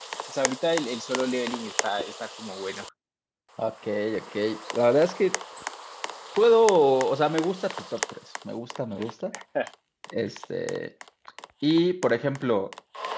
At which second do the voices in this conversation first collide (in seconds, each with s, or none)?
none